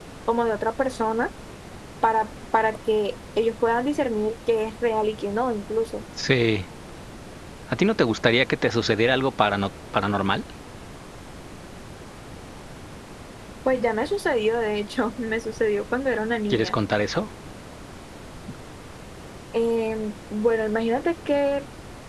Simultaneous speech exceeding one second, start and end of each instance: none

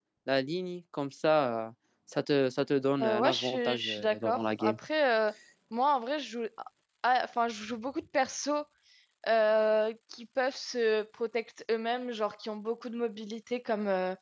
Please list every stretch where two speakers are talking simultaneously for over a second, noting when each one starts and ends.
3.0-4.8

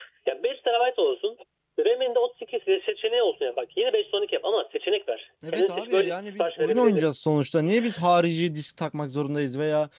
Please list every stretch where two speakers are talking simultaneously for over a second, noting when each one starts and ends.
5.5-7.1

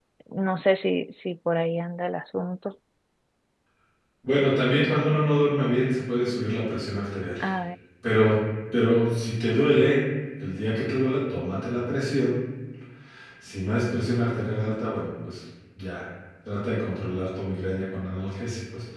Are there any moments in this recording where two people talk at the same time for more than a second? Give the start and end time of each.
none

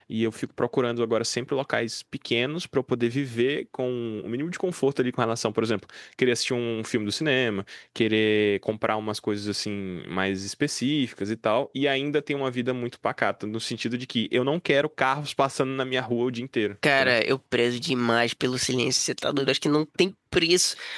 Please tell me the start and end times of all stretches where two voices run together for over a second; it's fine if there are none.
none

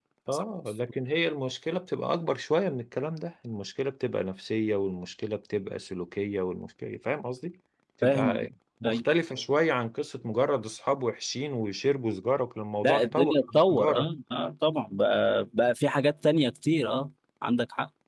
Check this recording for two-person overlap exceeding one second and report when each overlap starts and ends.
12.8-14.1

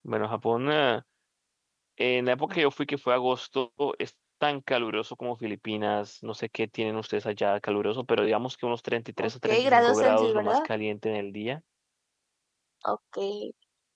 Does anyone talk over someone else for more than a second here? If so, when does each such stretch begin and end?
9.2-10.7

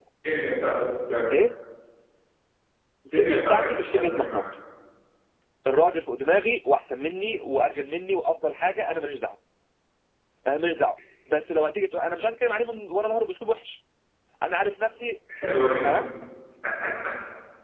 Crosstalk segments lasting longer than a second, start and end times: 3.2-4.4

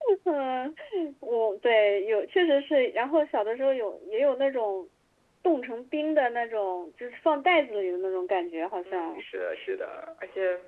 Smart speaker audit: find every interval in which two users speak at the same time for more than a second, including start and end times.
none

